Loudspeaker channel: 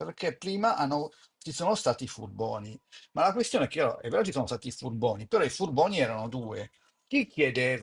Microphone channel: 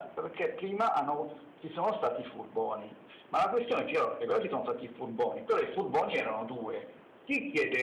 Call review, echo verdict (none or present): present